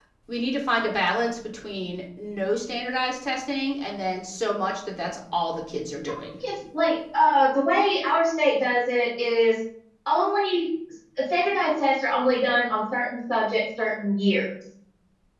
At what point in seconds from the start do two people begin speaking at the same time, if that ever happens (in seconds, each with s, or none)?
none